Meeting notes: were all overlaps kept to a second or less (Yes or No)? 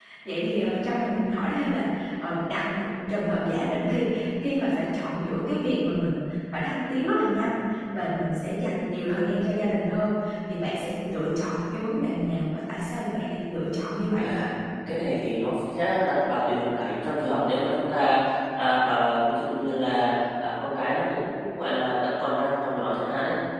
Yes